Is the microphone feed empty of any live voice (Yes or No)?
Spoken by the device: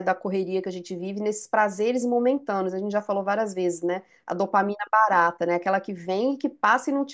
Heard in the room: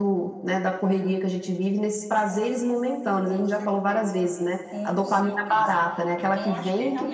No